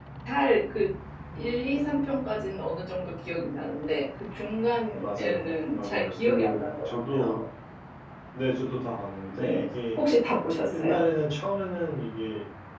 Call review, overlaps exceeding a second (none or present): present